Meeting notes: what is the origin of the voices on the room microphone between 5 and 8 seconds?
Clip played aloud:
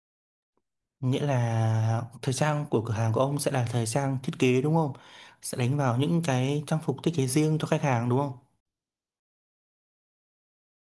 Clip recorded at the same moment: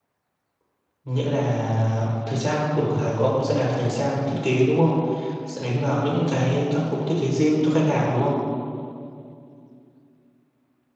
echo only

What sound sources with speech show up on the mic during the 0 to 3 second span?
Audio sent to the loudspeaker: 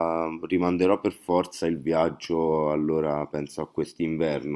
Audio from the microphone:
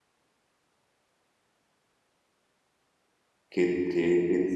neither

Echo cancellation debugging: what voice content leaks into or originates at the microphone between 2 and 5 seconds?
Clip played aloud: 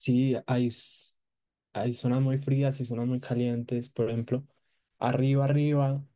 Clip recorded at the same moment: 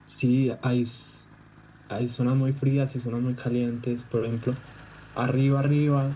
echo only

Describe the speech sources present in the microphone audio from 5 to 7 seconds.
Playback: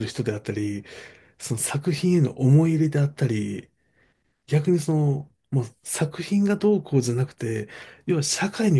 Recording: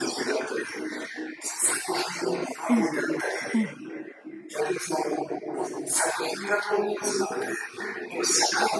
echo only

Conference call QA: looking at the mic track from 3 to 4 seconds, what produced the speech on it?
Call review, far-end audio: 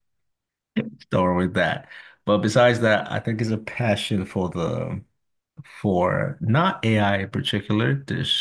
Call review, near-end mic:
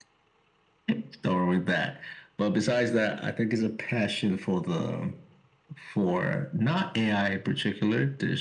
echo only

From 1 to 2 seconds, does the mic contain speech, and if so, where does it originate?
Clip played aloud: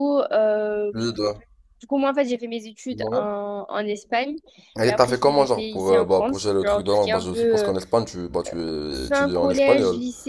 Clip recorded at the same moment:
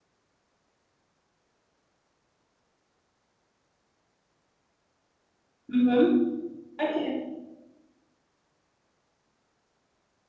neither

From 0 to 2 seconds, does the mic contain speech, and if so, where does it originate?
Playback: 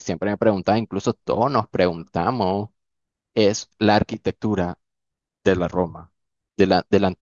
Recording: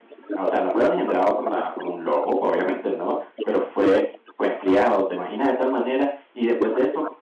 both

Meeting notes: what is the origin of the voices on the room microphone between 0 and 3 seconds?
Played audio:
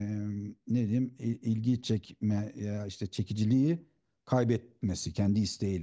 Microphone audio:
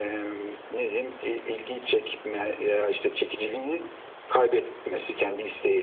echo only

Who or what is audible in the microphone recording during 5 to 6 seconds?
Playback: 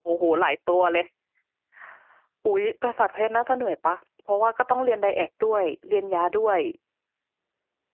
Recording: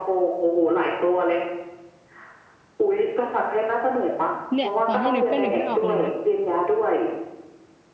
both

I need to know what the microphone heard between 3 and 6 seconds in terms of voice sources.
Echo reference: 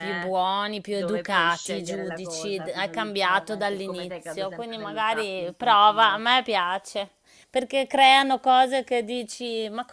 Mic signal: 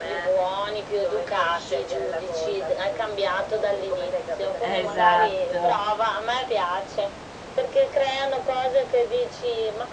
both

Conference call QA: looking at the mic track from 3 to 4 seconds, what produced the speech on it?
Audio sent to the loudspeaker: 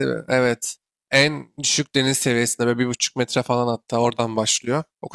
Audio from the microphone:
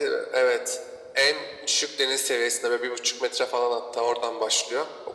echo only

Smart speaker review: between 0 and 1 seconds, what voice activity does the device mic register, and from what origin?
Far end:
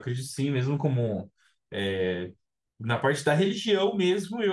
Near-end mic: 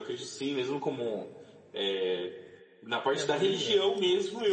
echo only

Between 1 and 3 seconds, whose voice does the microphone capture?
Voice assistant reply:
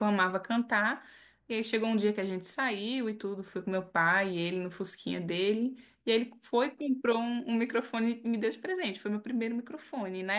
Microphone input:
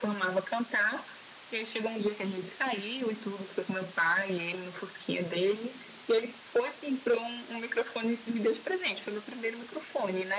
echo only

